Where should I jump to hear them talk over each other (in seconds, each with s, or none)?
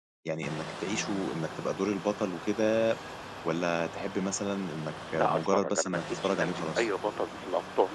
5.2 s